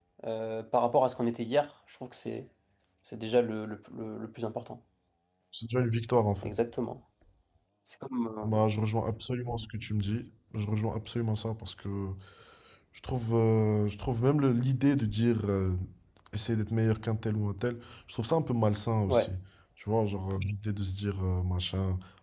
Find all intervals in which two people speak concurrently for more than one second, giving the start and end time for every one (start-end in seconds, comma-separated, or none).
none